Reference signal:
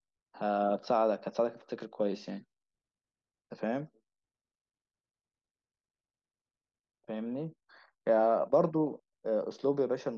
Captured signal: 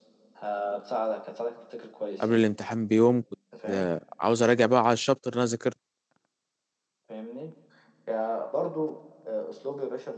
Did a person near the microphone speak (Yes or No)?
Yes